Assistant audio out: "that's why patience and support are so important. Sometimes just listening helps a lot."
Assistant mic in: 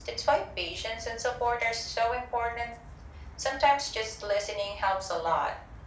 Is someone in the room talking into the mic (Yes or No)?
No